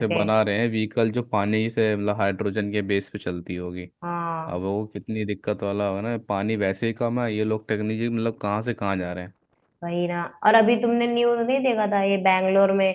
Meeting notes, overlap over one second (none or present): none